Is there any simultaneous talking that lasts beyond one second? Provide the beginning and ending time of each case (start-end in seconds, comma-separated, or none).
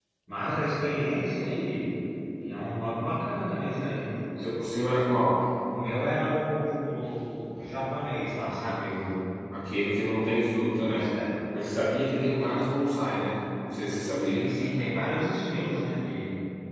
none